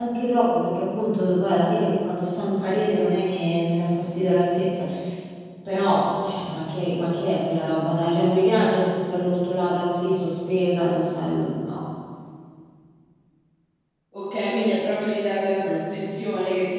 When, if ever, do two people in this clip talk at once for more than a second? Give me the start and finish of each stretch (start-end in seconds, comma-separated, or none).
none